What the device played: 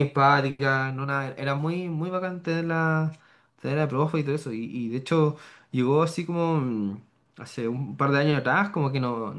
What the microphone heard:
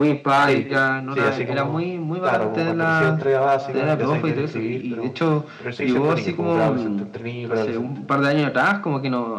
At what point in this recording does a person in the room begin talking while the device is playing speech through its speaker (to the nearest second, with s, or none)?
0 s